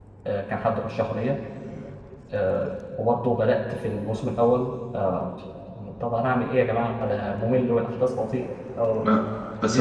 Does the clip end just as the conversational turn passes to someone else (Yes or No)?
Yes